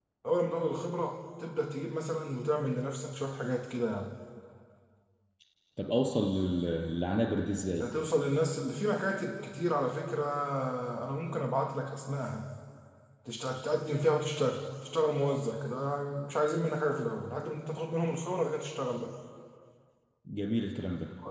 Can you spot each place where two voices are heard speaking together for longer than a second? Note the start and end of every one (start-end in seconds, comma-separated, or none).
none